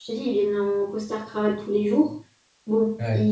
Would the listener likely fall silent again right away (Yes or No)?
Yes